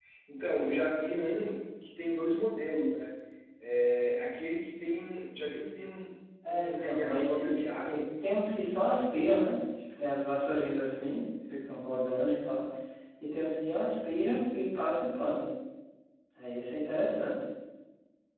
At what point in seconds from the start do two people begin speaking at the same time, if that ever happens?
6.4 s

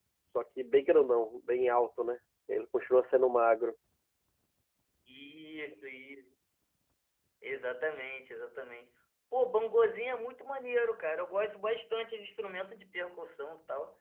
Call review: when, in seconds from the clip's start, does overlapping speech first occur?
none

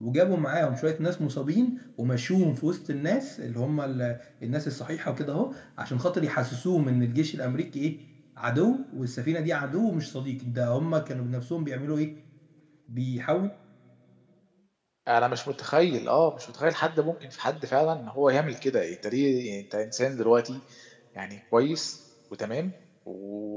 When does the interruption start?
none

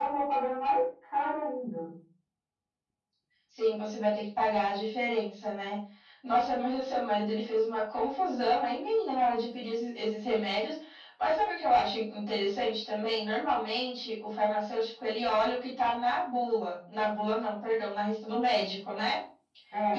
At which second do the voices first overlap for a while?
none

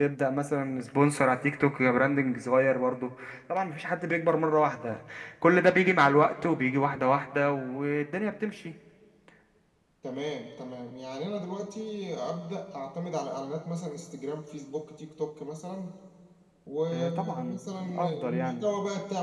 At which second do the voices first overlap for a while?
16.9 s

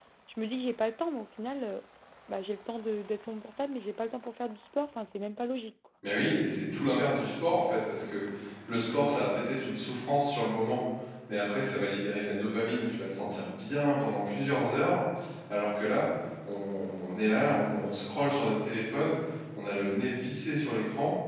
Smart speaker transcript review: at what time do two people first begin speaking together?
none

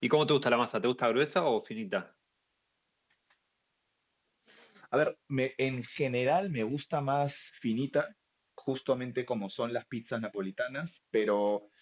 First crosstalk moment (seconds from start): none

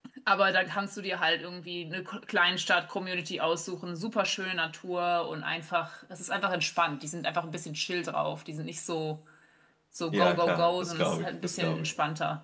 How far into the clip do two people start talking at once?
10.1 s

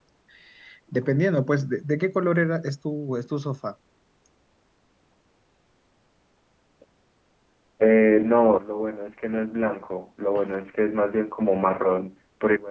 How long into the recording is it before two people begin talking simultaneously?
none

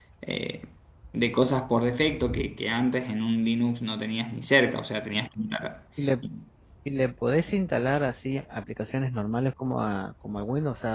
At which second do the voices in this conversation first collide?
none

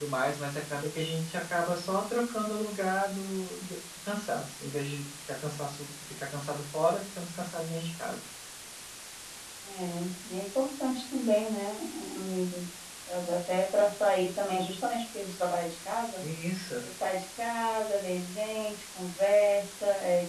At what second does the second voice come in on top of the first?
none

